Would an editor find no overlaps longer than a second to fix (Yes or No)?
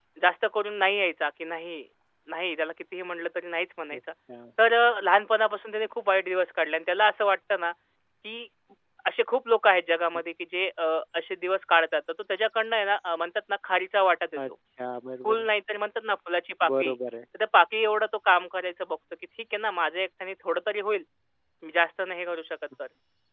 Yes